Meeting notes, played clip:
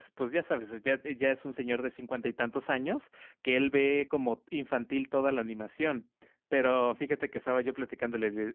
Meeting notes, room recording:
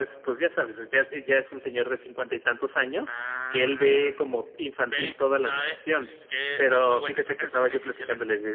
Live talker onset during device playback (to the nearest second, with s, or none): 3 s